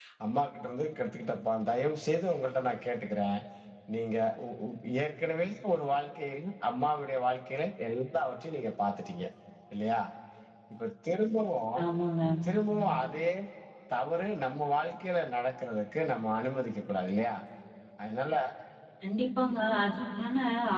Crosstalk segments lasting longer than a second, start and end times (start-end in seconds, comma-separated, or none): none